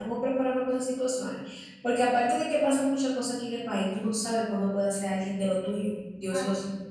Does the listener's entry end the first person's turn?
Yes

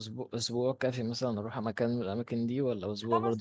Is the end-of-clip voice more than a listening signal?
Yes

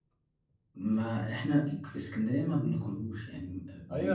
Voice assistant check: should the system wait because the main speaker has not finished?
No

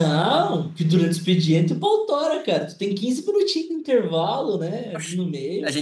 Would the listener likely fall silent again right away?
No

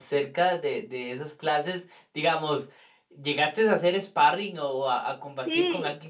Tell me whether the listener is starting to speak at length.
Yes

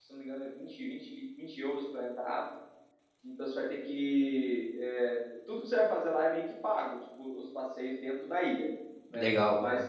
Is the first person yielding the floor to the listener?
No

